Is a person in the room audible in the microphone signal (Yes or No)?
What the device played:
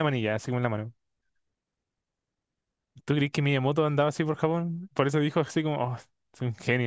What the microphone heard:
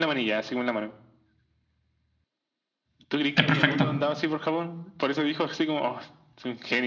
Yes